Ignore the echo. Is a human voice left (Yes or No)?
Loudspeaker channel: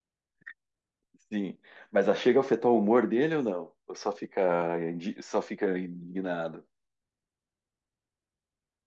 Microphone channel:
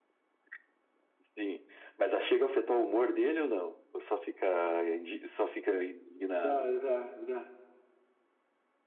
Yes